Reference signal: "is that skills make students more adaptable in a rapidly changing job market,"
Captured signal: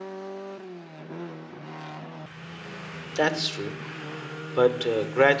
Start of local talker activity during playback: 3.1 s

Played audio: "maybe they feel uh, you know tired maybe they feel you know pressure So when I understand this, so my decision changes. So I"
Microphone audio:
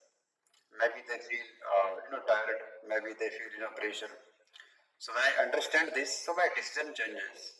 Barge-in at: none

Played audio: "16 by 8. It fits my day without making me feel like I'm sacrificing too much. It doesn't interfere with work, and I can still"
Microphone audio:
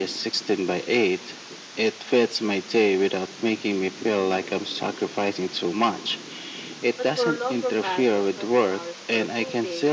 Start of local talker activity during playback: 7.0 s

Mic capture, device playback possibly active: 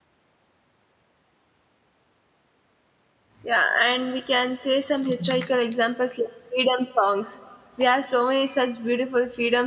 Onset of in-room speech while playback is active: 3.4 s

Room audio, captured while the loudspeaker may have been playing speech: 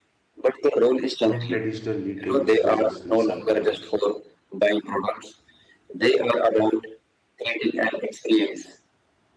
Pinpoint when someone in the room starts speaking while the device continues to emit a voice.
1.2 s

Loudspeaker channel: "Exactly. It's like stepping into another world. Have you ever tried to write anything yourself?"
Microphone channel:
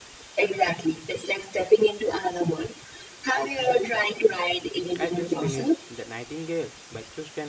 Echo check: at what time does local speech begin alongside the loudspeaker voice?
5.0 s

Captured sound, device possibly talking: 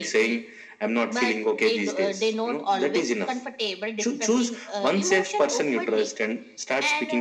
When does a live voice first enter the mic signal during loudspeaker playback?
none

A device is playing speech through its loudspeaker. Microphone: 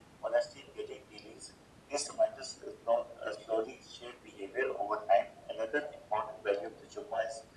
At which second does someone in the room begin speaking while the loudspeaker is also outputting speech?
none

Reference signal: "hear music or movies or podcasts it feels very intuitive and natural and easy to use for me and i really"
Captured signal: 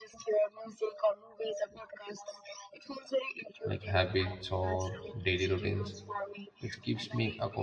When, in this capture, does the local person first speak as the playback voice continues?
3.6 s

